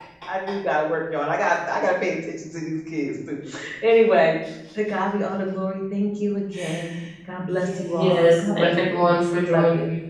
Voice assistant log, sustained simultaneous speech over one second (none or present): present